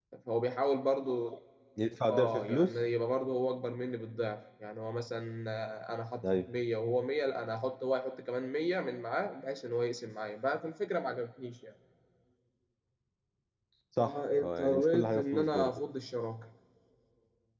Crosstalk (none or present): present